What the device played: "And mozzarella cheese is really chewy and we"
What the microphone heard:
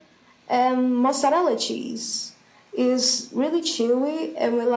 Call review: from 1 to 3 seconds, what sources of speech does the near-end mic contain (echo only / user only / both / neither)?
echo only